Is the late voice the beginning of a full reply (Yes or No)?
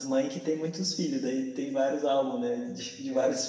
No